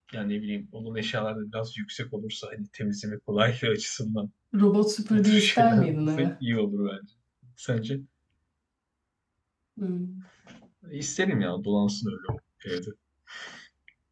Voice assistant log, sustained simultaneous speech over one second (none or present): present